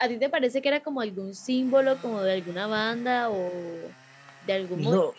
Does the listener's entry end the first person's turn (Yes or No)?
No